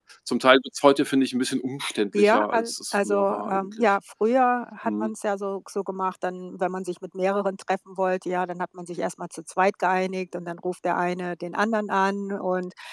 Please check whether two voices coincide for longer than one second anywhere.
Yes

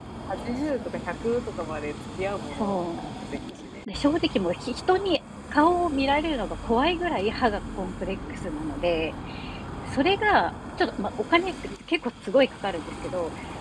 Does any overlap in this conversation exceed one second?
No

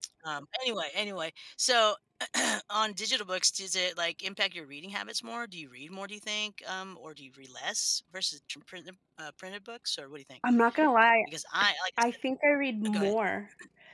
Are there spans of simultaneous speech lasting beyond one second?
No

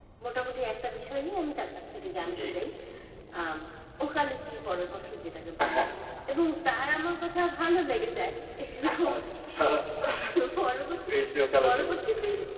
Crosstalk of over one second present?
No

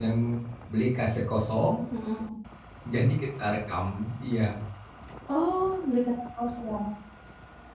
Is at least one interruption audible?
No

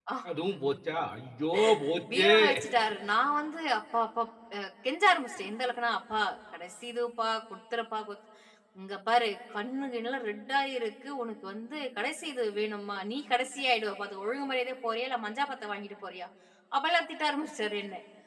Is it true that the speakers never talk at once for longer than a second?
Yes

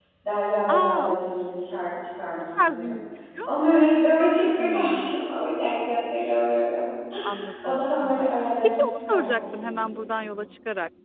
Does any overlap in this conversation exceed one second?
Yes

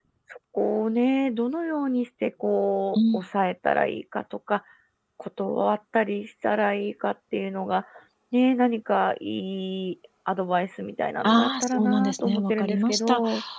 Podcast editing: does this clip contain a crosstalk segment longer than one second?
Yes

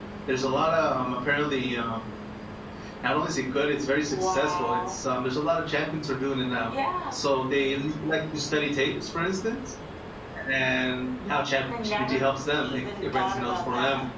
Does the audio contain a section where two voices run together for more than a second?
Yes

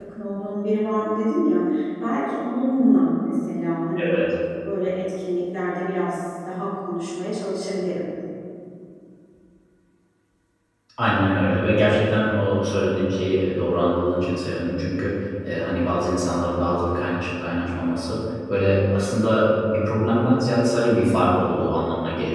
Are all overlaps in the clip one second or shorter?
Yes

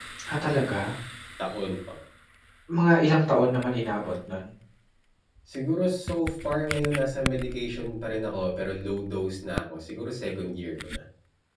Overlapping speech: No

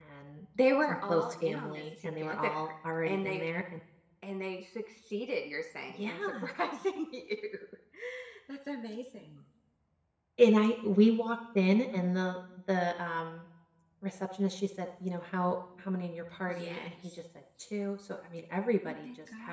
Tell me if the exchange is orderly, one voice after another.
No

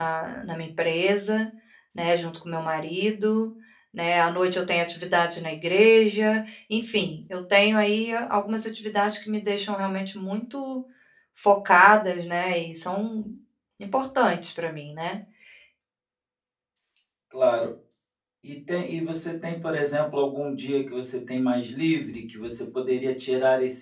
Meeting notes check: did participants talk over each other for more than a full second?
No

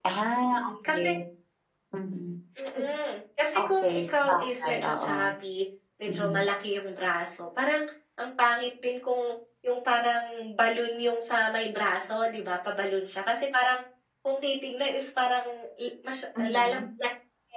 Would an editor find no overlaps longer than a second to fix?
No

